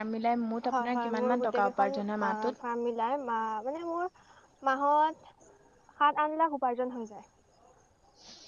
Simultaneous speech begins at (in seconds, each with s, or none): 0.7 s